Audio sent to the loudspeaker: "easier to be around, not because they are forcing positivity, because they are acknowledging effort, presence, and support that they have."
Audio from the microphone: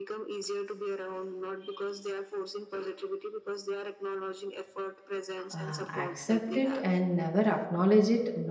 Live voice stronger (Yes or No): Yes